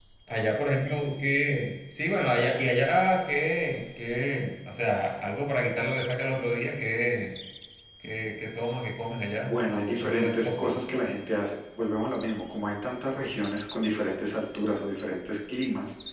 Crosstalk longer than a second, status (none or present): present